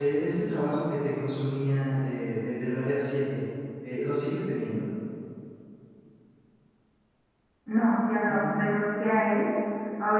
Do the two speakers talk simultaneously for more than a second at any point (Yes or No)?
No